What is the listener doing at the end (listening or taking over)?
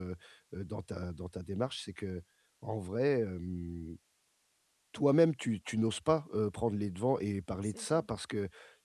listening